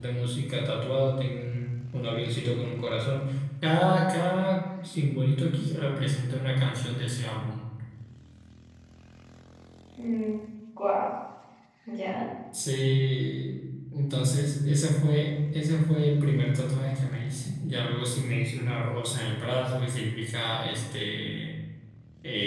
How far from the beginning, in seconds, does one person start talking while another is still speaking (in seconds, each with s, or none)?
none